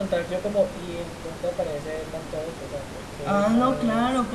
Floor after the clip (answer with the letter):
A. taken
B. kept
A